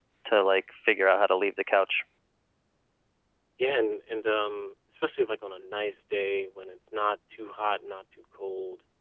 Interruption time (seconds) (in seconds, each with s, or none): none